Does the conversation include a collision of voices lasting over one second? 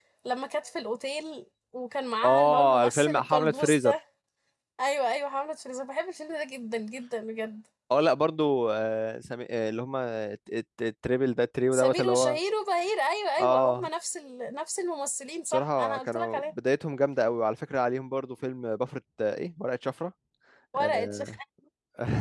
Yes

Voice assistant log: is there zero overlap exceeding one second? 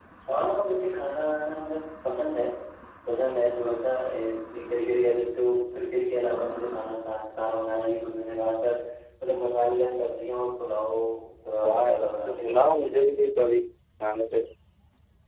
No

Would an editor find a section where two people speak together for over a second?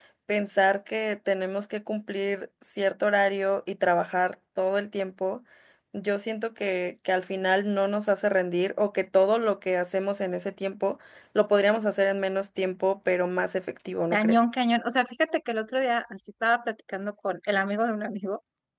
No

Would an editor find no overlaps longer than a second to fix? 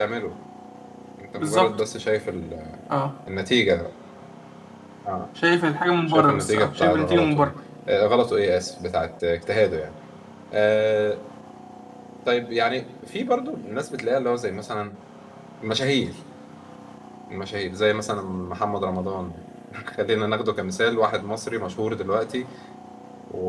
No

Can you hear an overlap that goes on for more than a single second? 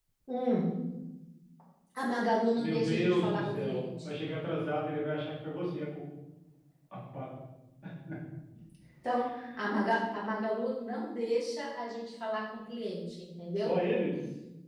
Yes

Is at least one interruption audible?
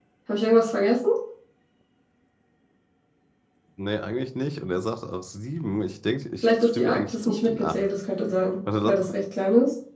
Yes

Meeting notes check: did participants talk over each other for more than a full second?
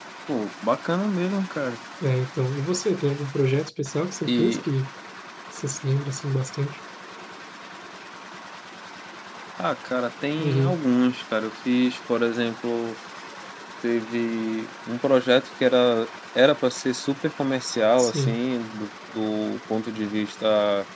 No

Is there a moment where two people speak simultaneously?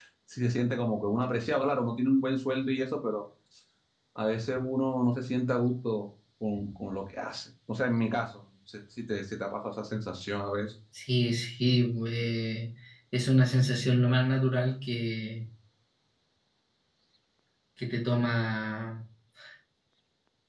No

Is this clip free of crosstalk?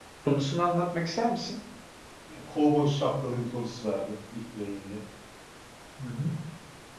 Yes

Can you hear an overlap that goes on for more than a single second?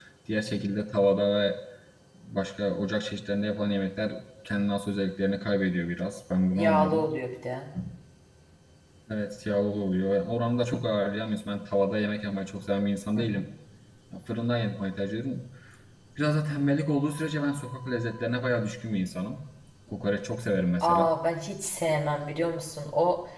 No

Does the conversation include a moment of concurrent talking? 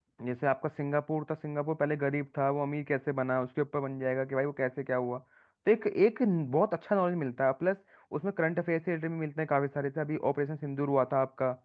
No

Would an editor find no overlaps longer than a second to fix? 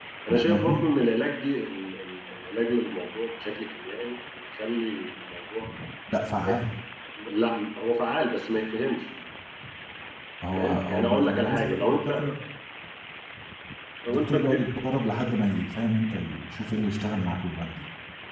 No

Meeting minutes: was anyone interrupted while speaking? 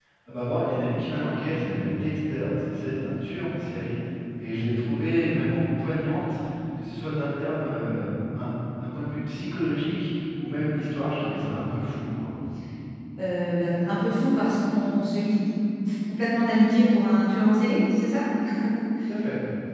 No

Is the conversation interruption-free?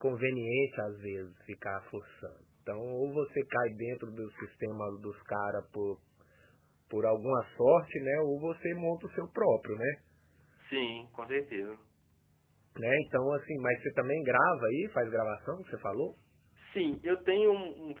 Yes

